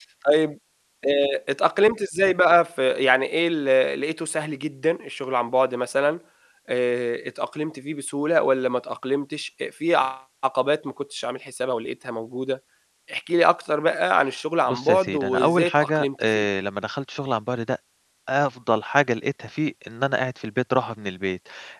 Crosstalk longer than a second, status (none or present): present